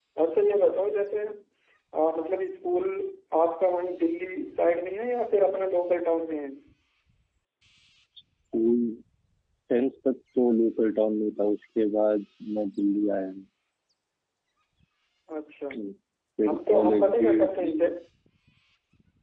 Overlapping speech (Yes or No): Yes